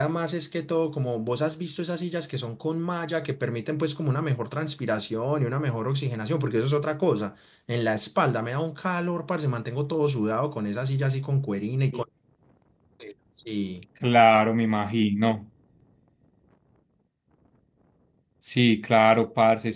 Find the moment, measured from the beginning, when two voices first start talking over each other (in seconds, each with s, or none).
none